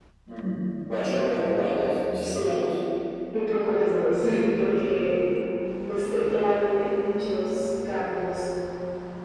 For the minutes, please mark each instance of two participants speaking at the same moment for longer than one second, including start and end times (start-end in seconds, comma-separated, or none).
none